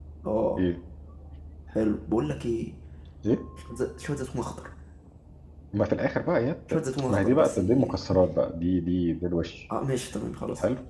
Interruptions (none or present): present